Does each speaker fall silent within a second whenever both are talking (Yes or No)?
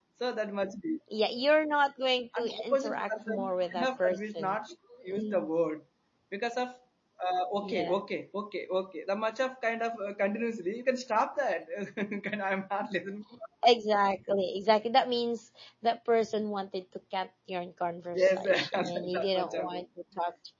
No